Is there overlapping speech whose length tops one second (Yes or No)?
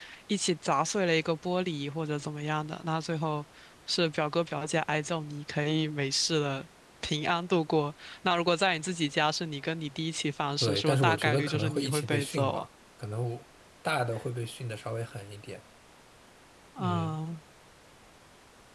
Yes